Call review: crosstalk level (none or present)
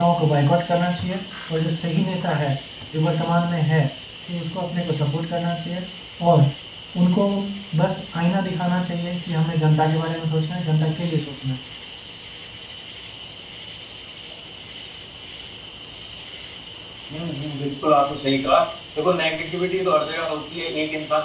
none